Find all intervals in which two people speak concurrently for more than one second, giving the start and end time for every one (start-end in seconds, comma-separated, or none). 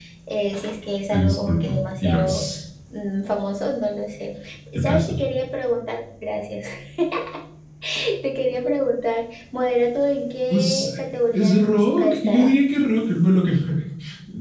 1.1-2.4, 11.3-12.5